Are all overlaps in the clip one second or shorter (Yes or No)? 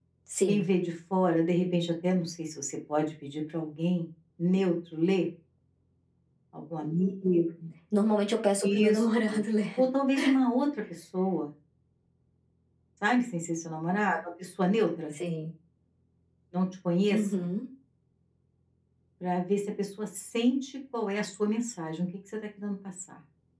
Yes